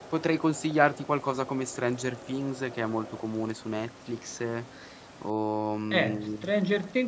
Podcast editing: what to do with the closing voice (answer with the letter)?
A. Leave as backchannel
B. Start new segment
B